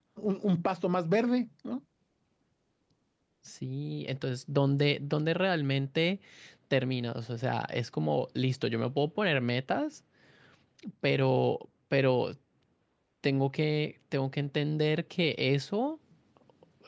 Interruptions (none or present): none